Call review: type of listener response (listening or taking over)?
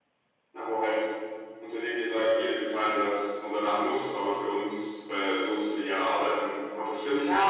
taking over